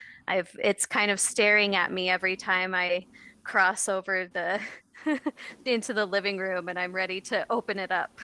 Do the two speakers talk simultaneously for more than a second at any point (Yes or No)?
No